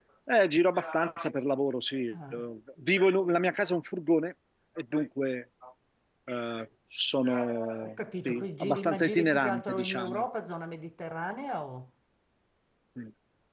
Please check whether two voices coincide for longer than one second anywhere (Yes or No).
Yes